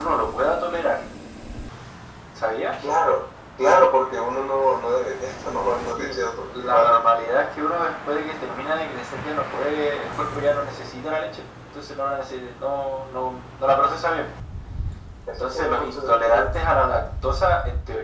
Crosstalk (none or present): present